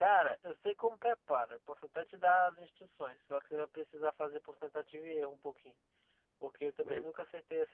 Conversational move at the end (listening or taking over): listening